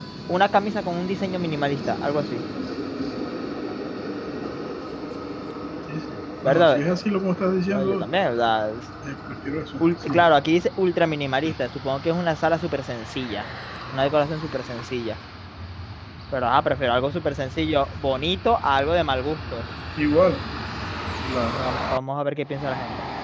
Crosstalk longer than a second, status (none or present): none